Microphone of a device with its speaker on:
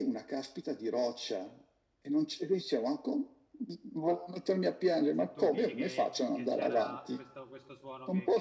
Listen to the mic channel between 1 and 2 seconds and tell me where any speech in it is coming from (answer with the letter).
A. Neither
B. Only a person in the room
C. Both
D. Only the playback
D